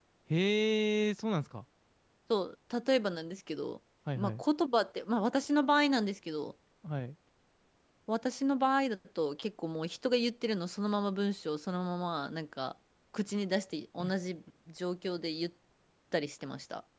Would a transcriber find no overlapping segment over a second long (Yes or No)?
Yes